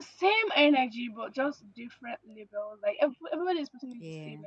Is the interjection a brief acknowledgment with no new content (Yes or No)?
Yes